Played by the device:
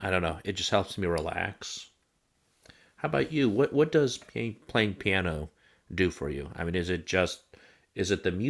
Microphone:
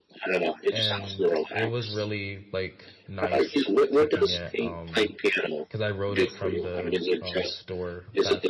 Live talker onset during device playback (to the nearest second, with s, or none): 1 s